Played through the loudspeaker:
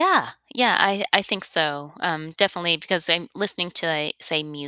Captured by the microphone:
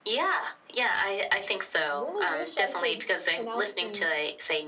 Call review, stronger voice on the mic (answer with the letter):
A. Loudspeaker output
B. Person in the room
A